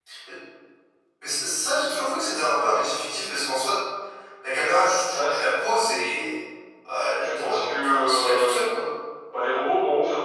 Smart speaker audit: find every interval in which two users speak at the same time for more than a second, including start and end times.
7.2-8.7

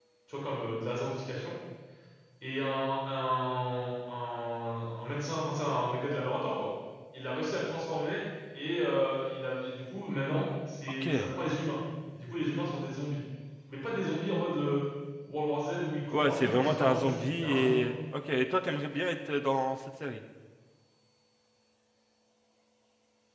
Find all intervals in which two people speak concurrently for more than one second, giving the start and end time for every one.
16.1-17.9

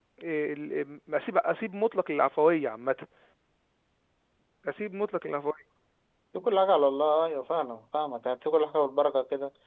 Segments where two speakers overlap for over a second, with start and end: none

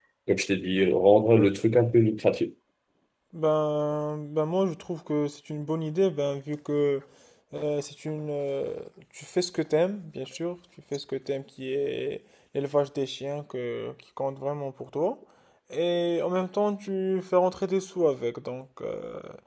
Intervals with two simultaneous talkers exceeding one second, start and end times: none

